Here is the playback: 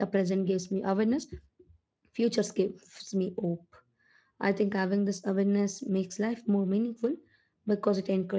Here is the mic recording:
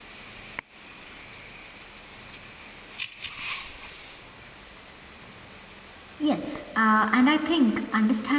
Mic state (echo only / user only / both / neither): user only